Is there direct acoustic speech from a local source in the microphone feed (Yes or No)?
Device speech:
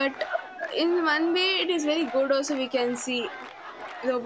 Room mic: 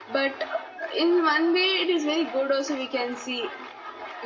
No